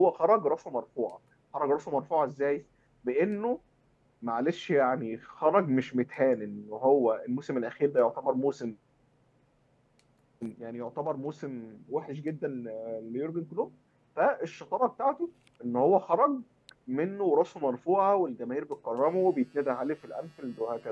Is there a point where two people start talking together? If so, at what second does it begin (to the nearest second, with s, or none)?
none